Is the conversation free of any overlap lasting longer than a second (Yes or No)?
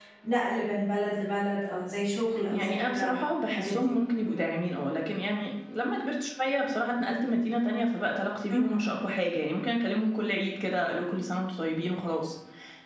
No